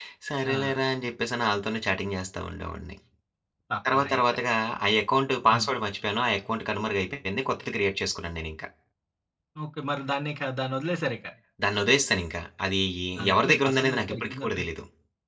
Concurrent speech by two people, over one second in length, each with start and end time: 13.3-14.6

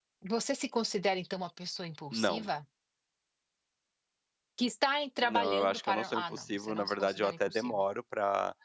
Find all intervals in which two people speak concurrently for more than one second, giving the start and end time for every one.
5.2-7.8

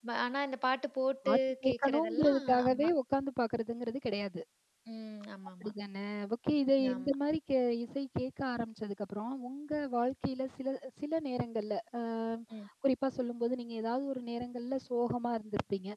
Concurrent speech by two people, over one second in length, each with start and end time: 1.3-2.9

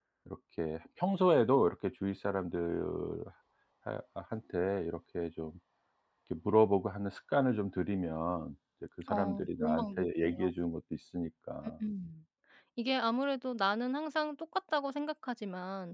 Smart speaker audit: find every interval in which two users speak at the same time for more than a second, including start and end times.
9.1-10.5

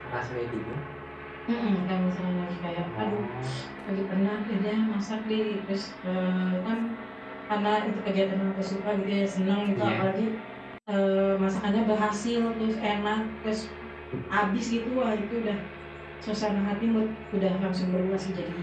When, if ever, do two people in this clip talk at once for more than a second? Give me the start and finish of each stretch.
none

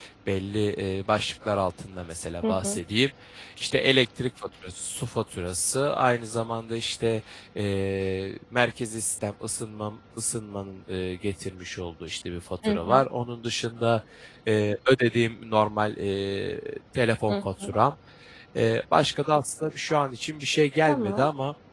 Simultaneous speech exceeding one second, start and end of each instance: none

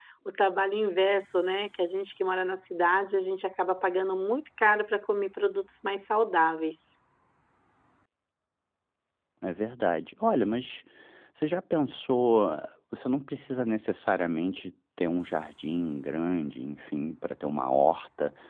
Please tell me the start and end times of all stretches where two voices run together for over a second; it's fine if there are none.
none

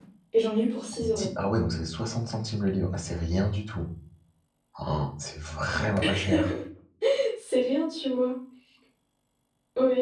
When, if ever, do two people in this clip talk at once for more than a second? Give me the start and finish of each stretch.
none

